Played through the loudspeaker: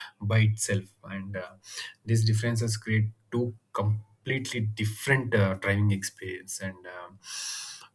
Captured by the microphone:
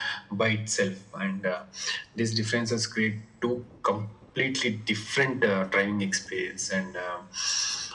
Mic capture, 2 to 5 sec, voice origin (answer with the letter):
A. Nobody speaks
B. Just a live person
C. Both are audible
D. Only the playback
D